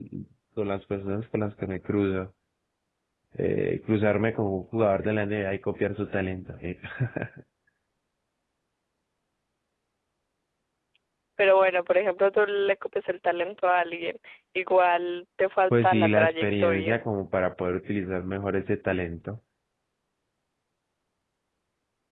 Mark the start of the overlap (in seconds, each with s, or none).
15.7 s